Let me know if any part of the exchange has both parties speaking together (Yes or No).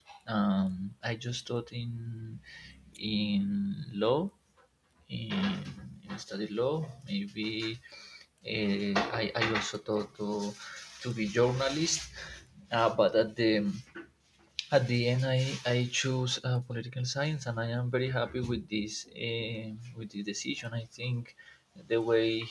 No